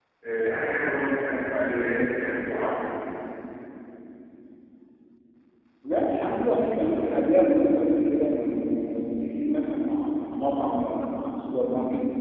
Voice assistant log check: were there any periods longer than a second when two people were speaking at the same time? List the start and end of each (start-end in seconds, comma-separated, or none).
none